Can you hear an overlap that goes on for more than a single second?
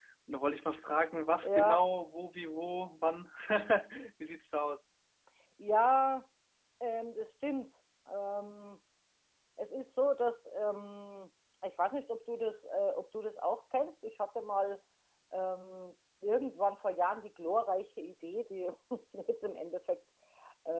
No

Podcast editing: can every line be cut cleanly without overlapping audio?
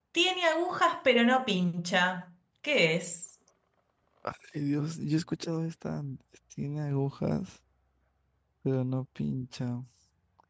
Yes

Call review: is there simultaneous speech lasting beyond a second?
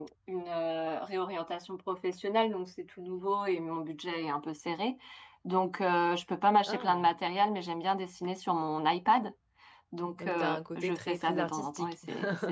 Yes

